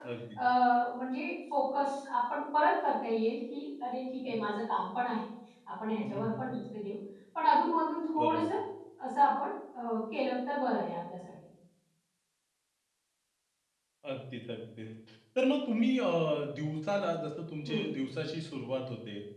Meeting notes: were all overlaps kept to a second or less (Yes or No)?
Yes